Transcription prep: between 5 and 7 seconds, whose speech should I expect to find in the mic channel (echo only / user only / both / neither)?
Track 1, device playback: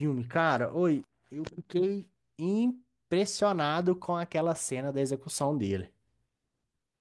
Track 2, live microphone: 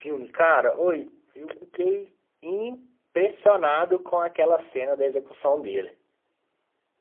echo only